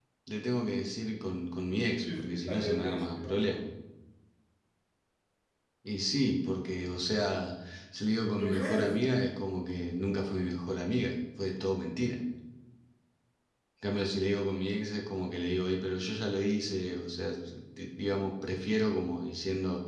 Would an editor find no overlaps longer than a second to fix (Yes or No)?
No